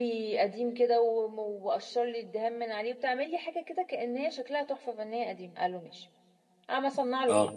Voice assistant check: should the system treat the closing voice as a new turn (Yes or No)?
No